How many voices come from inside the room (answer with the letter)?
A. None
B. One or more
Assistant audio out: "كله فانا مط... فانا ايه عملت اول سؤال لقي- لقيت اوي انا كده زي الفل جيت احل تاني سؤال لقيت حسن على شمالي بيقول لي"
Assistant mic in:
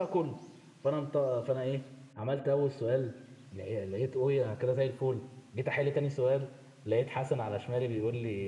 A